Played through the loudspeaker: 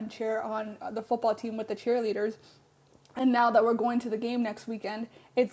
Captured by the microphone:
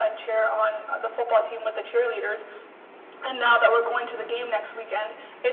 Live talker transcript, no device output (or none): none